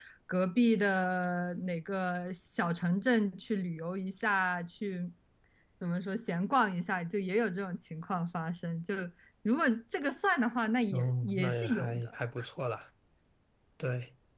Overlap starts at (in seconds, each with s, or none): 10.9 s